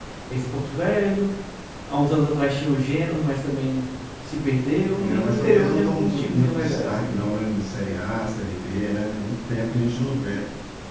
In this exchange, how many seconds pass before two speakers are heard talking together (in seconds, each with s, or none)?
5.0 s